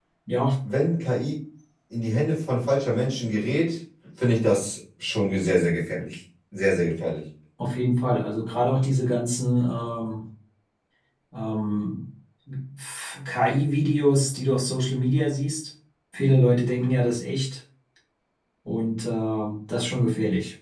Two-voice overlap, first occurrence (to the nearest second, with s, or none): none